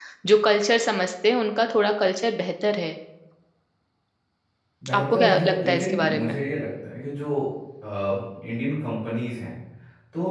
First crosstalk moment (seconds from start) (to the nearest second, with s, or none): 5 s